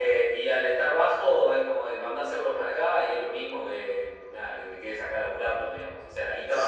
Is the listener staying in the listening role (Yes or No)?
No